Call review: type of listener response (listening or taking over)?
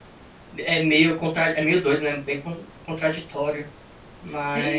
taking over